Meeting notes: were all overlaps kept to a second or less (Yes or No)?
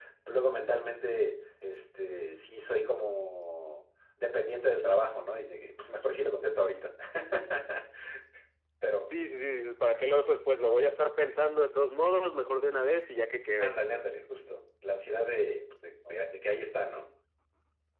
Yes